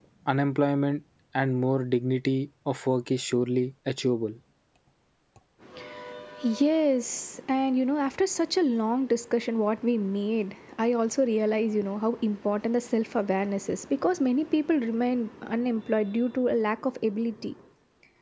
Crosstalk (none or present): none